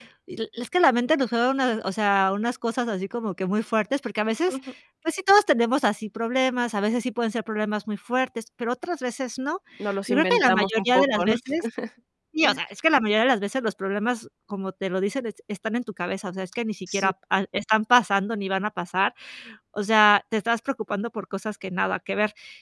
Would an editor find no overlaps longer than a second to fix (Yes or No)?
No